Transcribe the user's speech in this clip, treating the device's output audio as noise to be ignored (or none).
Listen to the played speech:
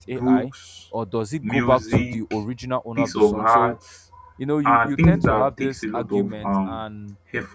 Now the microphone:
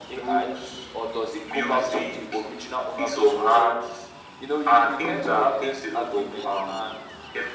none